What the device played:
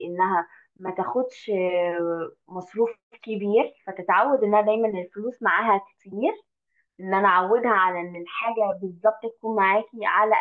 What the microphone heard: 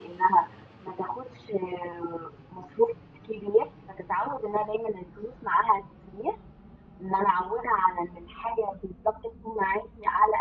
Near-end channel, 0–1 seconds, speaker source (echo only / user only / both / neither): echo only